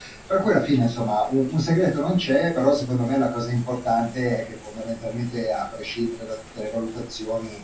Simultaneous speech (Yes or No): No